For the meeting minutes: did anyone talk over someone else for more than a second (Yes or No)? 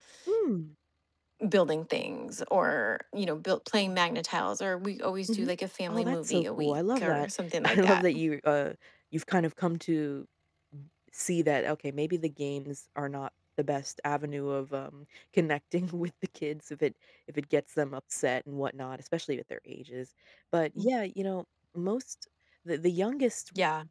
Yes